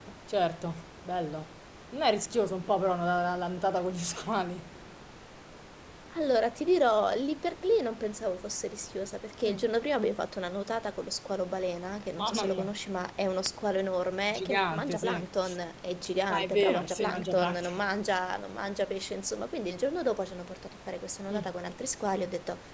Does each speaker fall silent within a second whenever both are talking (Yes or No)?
No